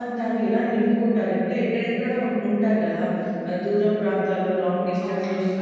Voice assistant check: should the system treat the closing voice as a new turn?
No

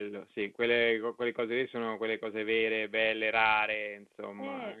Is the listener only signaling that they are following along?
No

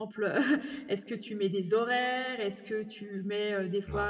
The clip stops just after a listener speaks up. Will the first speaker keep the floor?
Yes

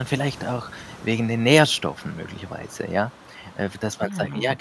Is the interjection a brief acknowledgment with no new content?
Yes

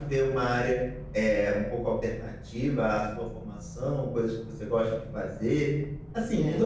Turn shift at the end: No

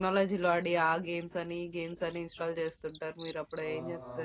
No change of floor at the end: No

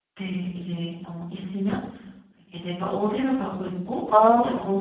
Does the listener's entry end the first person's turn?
No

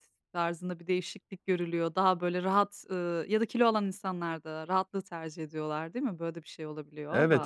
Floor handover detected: Yes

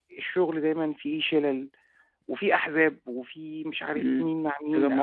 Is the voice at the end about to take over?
Yes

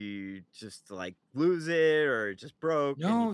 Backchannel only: No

